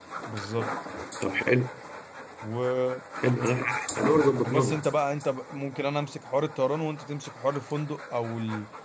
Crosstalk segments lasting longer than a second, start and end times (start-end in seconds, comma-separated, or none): none